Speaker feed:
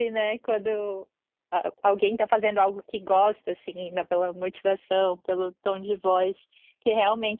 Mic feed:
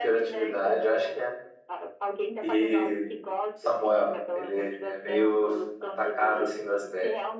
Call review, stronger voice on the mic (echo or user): user